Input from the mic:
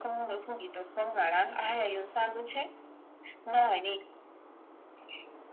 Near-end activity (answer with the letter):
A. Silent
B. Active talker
A